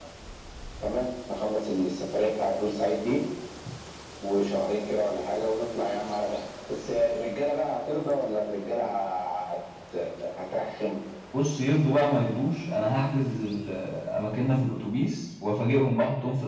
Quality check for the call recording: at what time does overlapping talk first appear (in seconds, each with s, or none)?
none